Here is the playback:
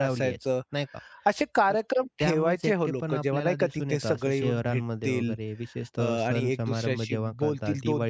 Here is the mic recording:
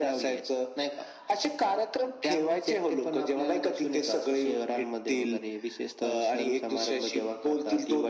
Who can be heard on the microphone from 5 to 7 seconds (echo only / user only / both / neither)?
echo only